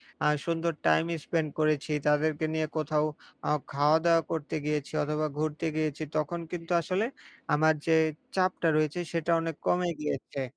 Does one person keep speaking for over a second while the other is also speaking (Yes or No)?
No